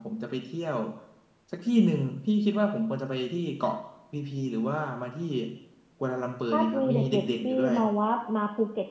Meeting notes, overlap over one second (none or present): present